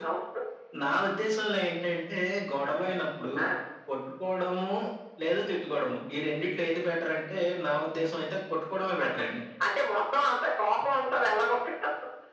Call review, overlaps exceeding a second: none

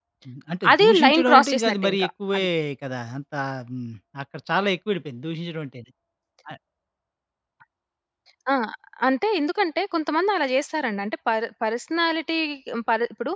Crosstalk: present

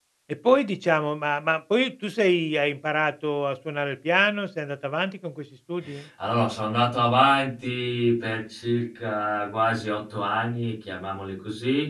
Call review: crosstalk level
none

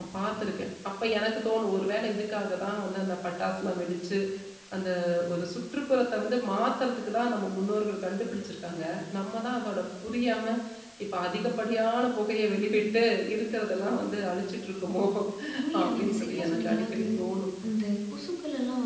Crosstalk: present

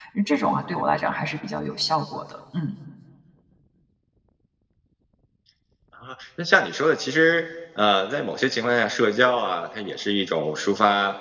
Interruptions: none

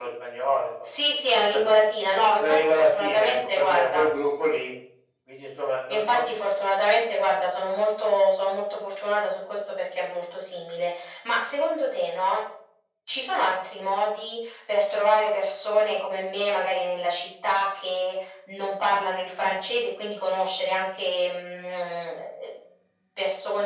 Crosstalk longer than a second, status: present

